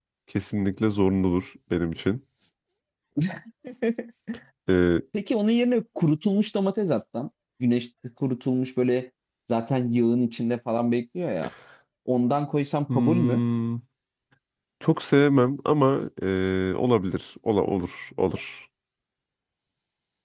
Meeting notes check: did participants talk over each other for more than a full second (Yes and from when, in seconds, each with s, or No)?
No